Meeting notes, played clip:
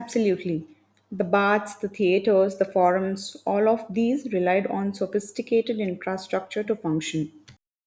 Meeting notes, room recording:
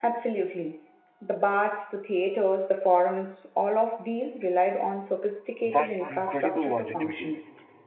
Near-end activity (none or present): present